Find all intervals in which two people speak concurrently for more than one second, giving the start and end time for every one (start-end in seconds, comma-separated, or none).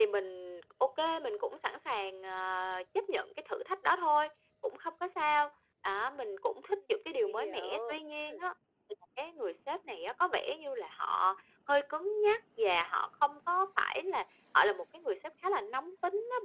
6.7-8.4